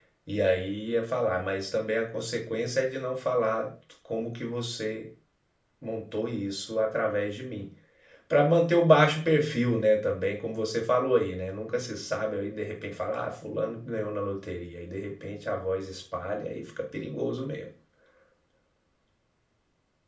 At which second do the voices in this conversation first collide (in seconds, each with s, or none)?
none